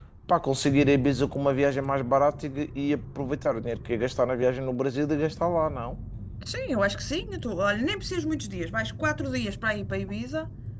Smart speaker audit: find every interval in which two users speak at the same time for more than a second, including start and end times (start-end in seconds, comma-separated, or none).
none